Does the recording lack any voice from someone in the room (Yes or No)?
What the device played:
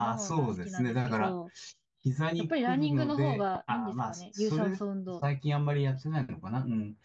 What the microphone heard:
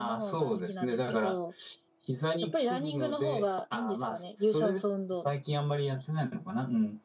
Yes